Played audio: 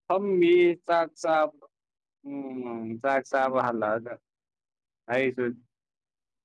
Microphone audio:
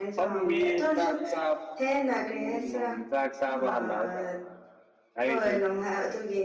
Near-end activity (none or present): present